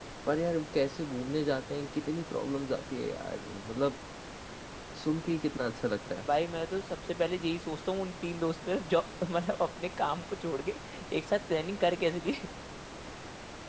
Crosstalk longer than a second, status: none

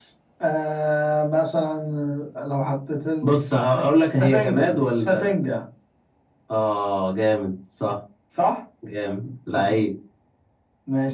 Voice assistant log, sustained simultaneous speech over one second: present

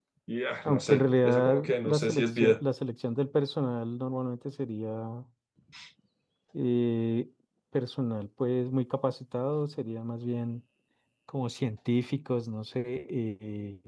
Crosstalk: present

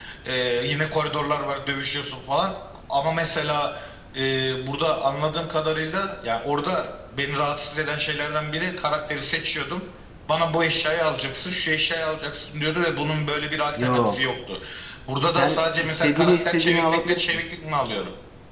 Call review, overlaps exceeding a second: present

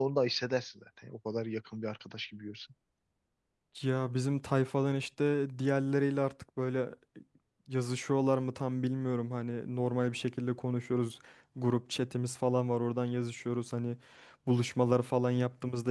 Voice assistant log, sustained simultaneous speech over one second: none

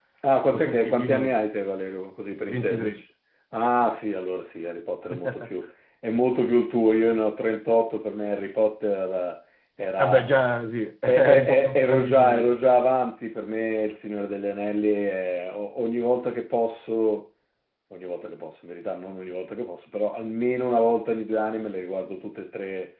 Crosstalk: present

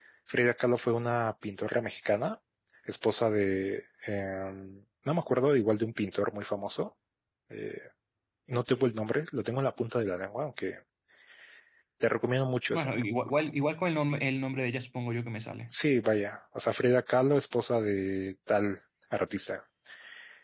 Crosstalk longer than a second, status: none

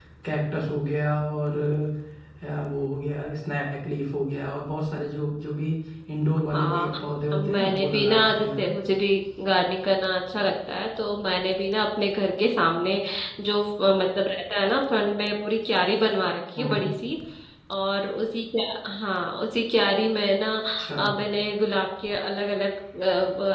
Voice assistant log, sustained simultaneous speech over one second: present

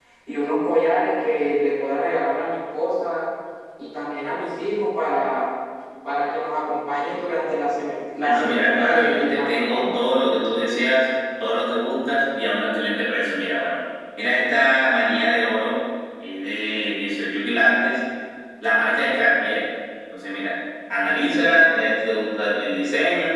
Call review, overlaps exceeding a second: present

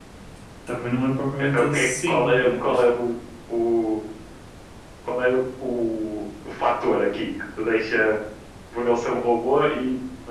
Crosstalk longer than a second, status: present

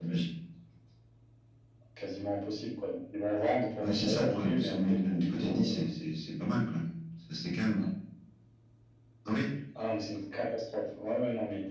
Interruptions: present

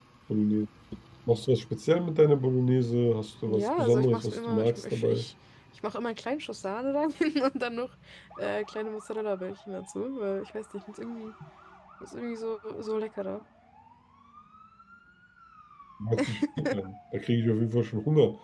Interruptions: present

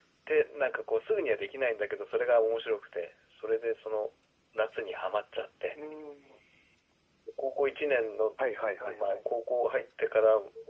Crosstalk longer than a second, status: none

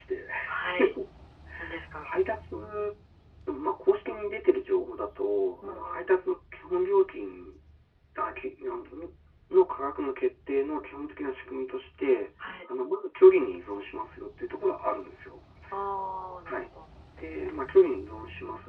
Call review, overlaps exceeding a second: none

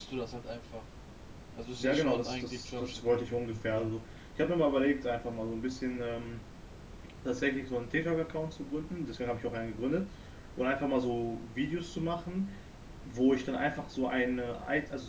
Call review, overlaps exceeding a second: present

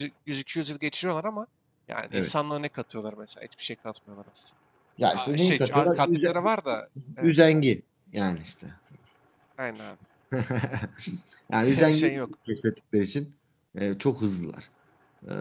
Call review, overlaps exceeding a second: present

